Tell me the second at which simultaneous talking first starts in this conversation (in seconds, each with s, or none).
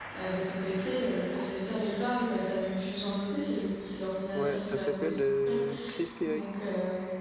4.3 s